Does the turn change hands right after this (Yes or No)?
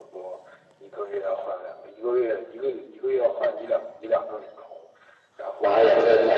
Yes